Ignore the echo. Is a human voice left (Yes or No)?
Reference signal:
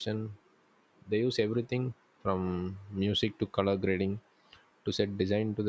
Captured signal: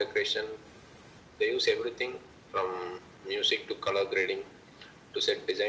No